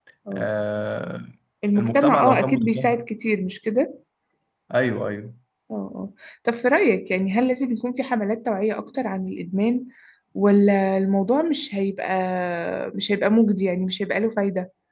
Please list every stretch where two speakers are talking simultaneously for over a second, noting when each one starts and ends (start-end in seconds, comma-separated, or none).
1.8-3.0